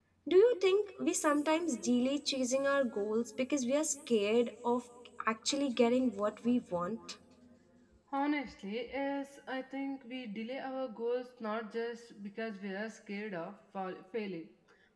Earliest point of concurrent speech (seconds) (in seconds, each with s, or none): none